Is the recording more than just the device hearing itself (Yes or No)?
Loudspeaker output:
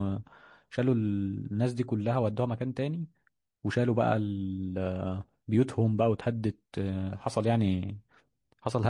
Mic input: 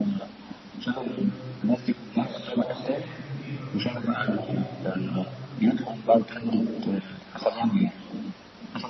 Yes